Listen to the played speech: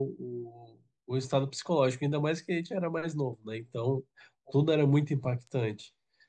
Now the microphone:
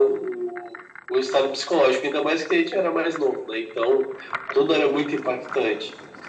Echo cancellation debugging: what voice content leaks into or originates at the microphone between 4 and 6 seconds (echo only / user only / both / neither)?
echo only